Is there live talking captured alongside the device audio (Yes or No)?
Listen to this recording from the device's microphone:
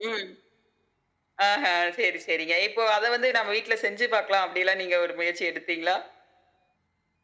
No